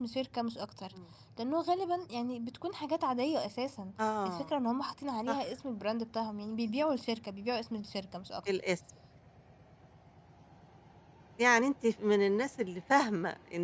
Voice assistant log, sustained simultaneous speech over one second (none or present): none